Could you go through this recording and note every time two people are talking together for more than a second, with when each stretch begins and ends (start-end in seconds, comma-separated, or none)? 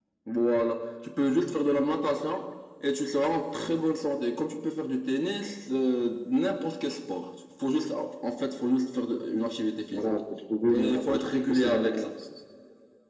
10.8-12.1